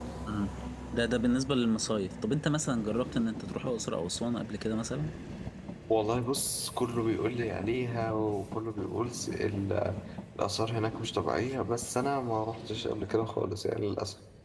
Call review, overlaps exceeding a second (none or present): none